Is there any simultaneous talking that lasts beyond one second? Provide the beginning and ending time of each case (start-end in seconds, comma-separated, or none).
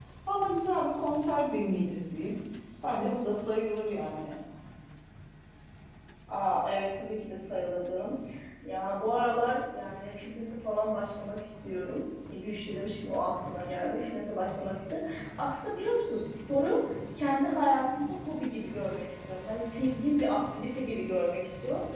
none